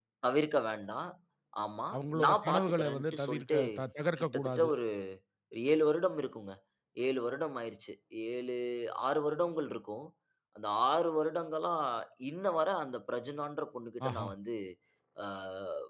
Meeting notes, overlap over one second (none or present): present